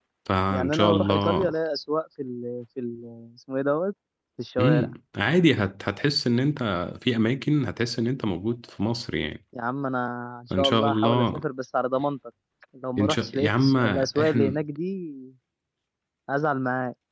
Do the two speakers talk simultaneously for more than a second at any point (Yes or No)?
Yes